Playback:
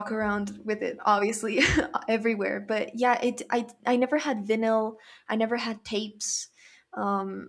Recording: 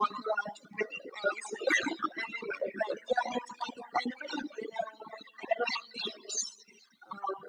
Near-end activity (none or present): none